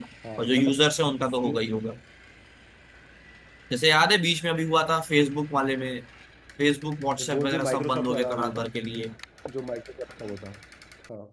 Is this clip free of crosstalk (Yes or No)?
No